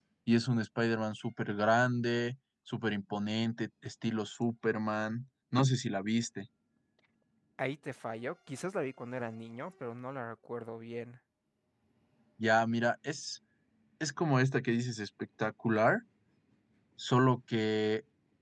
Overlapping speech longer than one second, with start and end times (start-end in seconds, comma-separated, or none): none